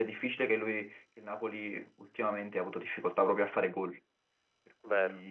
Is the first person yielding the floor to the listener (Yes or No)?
Yes